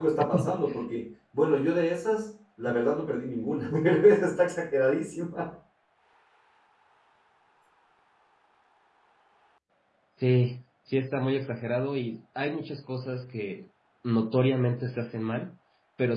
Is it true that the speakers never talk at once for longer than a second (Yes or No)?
Yes